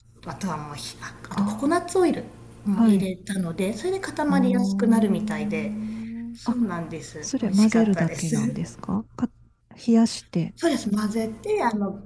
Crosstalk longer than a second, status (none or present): present